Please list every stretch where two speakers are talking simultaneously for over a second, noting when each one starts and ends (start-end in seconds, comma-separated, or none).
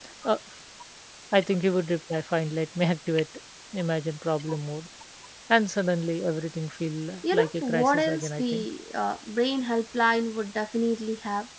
7.3-8.7